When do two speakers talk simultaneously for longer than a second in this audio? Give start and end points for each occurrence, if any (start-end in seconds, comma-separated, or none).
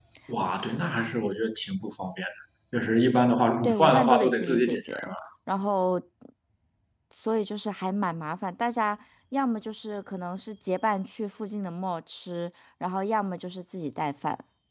3.6-4.9